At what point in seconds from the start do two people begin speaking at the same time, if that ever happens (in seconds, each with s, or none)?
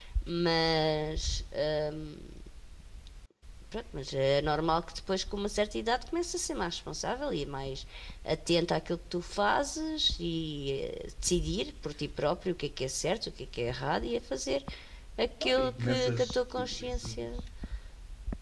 15.4 s